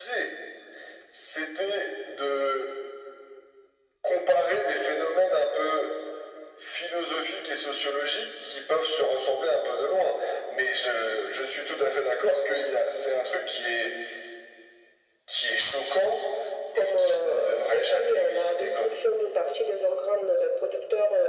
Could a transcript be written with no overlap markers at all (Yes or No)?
No